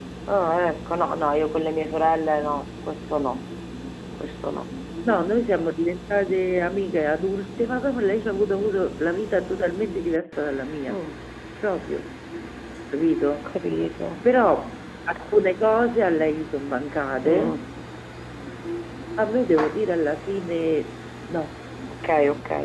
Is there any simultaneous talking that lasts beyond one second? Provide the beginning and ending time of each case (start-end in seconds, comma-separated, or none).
none